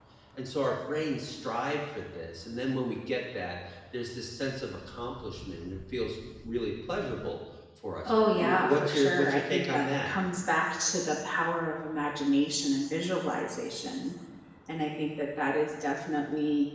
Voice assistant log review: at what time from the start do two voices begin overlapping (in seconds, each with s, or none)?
8.0 s